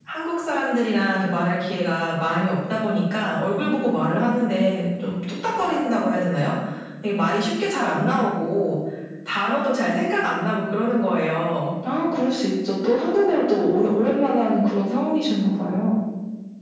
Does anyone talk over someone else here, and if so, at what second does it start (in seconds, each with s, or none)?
none